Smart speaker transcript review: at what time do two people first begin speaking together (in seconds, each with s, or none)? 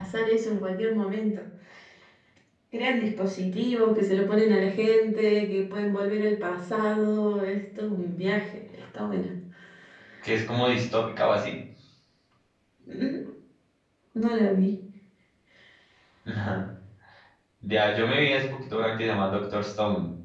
none